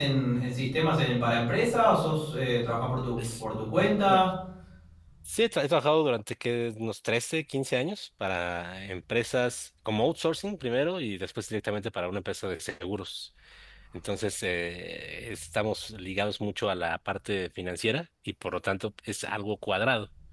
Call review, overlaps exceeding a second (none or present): none